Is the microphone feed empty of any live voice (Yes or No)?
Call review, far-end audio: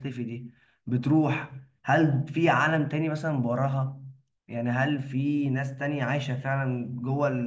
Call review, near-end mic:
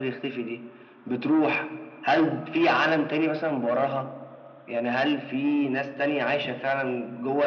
Yes